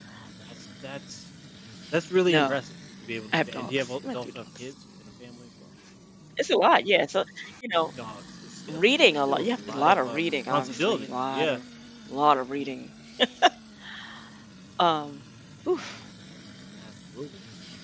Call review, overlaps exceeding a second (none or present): present